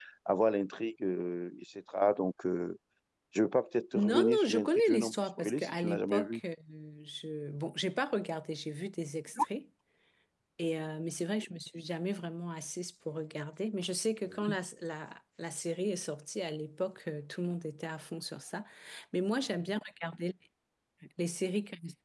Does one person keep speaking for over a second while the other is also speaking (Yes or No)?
Yes